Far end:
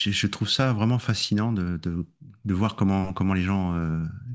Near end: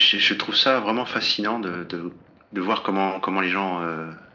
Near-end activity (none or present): none